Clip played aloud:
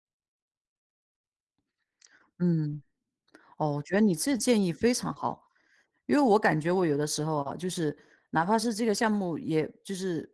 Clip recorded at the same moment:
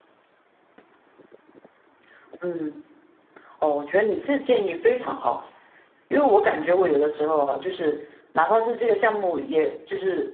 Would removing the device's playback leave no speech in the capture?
Yes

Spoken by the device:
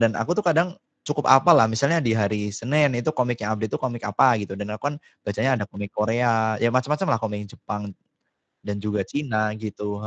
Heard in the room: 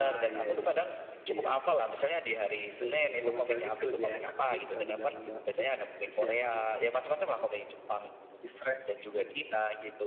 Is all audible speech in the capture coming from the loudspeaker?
No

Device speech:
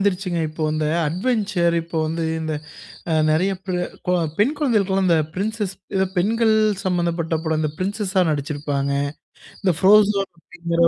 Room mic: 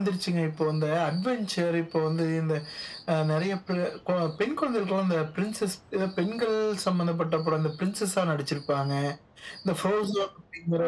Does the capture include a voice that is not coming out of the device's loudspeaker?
No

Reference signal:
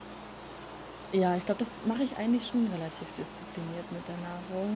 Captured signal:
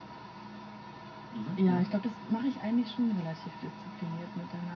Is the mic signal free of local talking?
No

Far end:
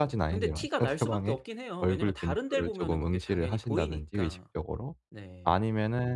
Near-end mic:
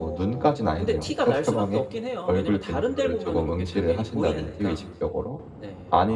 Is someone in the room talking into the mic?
Yes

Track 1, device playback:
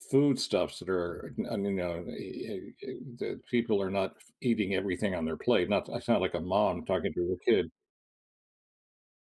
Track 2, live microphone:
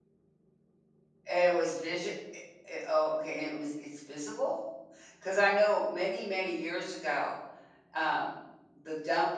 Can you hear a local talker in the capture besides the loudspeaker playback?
Yes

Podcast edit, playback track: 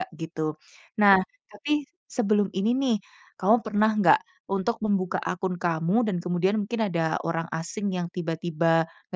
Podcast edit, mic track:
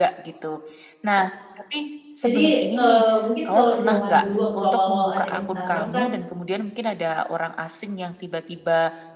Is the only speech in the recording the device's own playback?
No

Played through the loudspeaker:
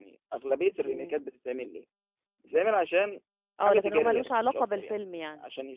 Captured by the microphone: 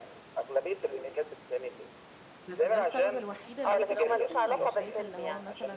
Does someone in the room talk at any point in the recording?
Yes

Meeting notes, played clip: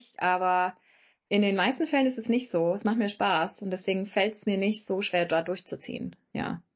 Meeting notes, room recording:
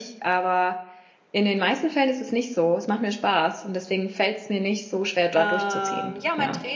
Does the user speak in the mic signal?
Yes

